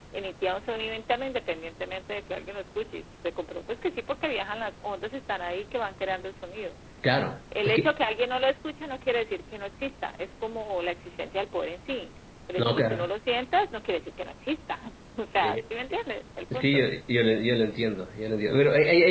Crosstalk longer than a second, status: none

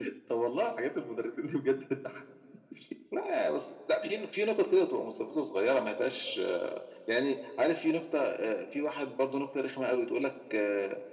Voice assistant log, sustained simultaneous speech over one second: none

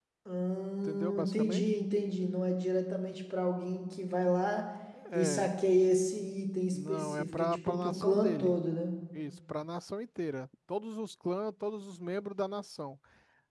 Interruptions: present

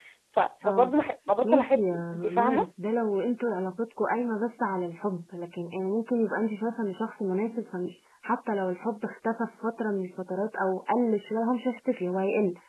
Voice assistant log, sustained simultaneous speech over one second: present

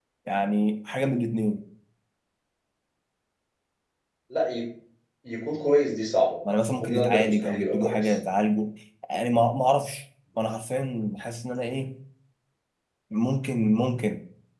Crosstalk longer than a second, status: present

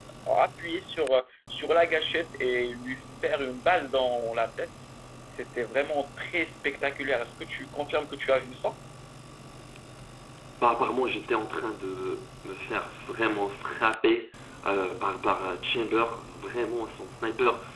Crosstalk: none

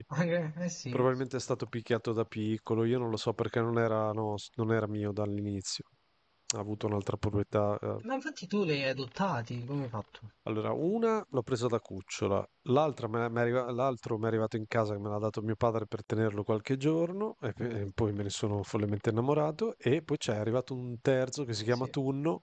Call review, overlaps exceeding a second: none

